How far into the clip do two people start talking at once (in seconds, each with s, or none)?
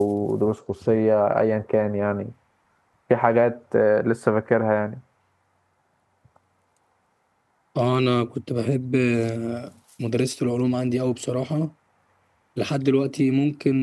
none